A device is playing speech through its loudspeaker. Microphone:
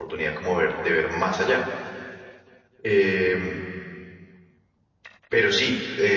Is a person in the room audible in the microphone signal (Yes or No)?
Yes